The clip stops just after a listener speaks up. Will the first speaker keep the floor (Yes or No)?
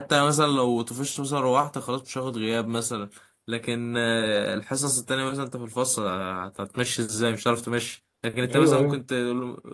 Yes